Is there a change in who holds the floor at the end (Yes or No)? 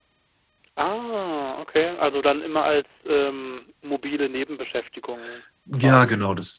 Yes